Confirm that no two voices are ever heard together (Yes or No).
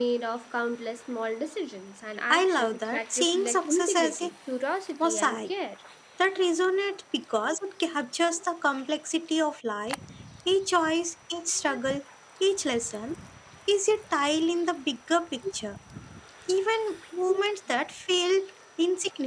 No